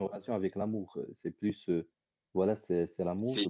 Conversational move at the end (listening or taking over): listening